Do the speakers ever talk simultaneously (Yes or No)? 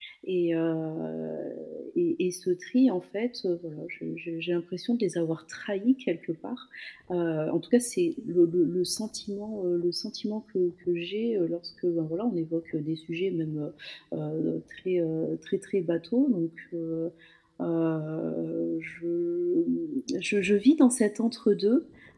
No